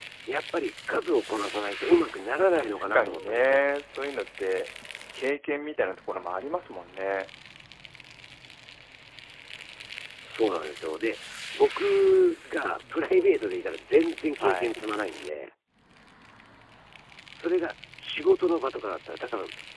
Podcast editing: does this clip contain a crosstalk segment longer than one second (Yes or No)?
Yes